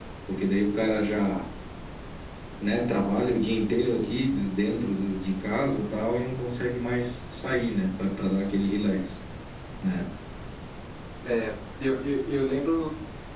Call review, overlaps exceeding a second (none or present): none